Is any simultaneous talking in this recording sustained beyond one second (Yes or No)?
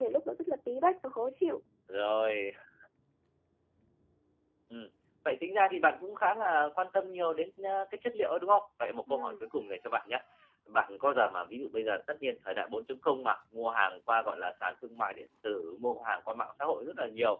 No